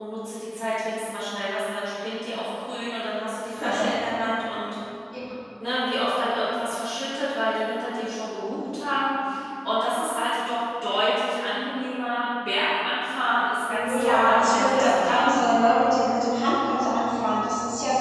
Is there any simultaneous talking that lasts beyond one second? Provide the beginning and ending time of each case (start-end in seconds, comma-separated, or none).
13.7-15.3